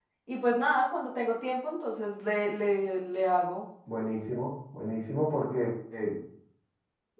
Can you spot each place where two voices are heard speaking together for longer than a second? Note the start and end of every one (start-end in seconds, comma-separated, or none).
none